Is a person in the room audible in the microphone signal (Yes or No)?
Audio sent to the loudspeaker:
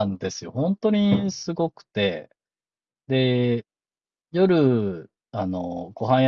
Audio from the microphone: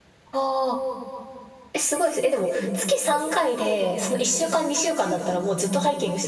Yes